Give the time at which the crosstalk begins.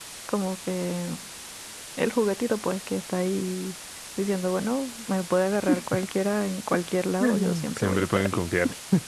7.2 s

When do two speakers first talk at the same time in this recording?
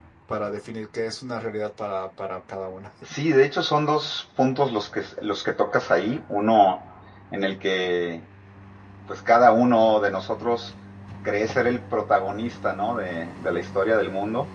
none

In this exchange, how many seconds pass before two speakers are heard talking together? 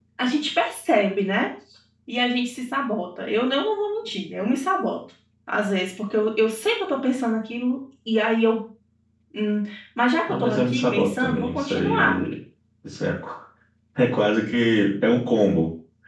10.3 s

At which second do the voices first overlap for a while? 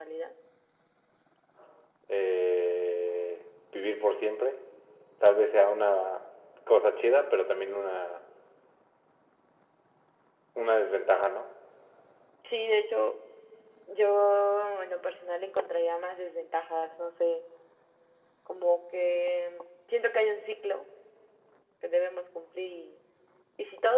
none

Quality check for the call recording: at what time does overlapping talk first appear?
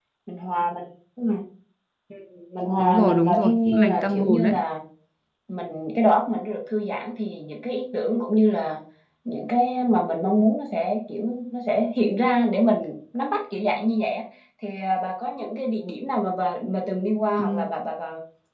2.8 s

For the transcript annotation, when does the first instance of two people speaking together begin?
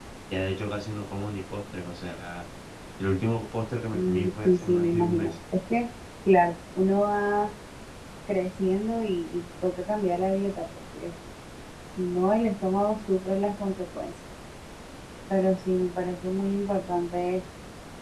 3.9 s

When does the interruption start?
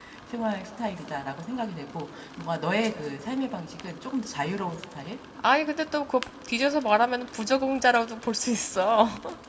none

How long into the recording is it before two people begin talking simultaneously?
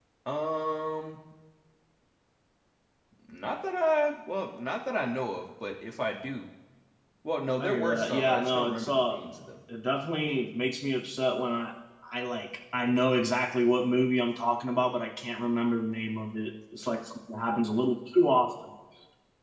7.6 s

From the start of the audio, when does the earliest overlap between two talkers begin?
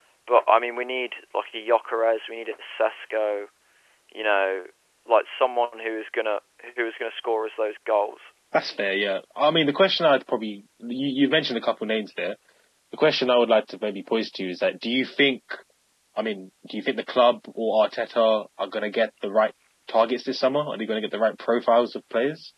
none

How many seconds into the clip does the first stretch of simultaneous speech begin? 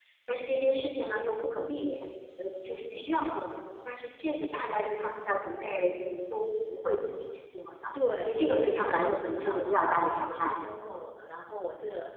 8.2 s

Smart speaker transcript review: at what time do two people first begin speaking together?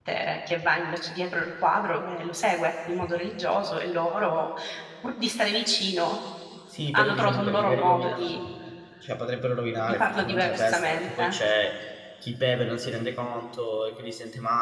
6.9 s

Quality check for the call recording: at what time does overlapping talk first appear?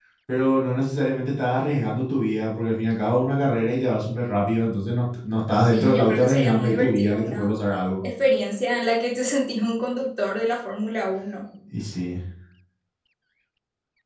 5.5 s

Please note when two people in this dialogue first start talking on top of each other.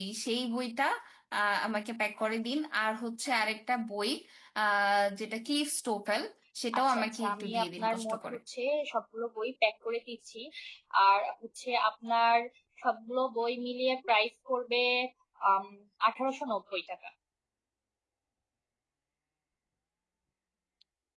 6.8 s

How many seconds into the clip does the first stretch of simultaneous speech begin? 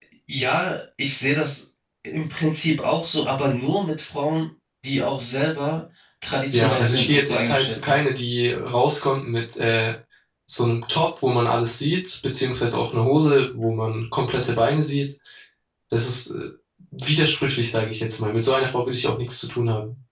6.5 s

